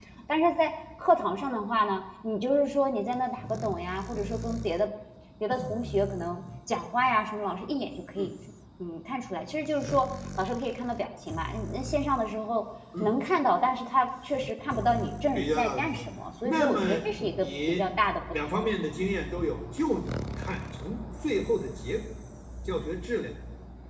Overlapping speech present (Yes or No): Yes